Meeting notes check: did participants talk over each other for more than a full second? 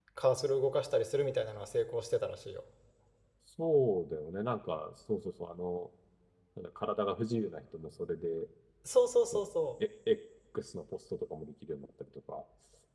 No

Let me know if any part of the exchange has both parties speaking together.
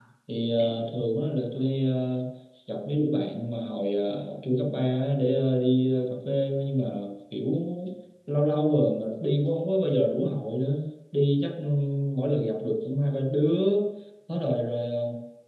No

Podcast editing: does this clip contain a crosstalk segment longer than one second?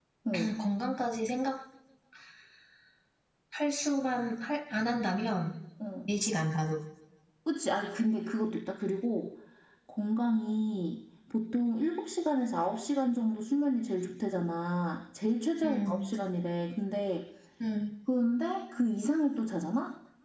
No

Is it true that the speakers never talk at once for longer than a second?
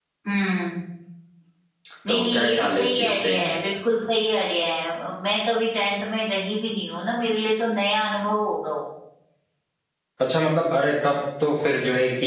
No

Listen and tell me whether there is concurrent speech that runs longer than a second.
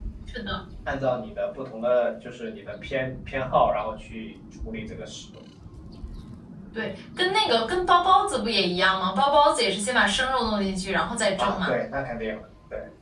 No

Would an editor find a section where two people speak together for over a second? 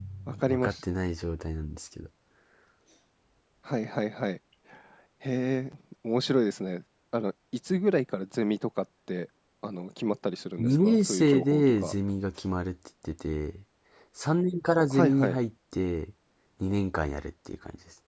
Yes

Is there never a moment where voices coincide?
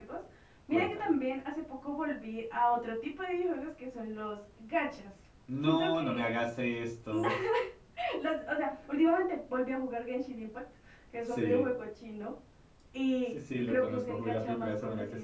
No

